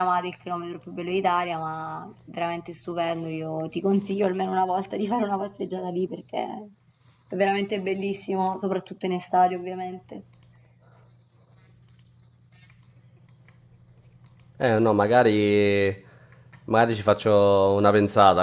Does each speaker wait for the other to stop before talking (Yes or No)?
Yes